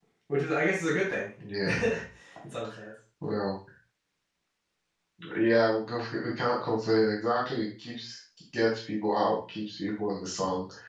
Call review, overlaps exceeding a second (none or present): none